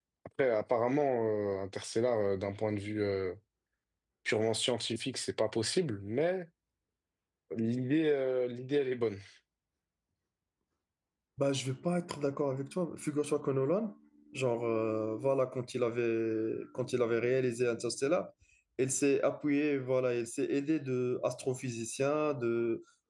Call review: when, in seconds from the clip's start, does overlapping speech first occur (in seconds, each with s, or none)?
none